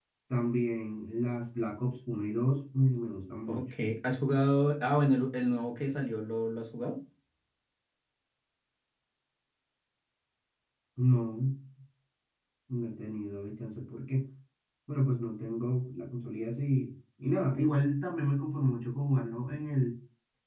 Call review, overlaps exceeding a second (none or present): none